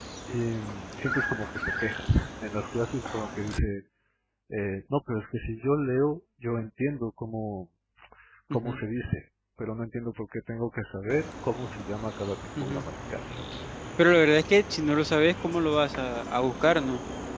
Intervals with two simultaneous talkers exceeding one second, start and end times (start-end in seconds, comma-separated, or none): none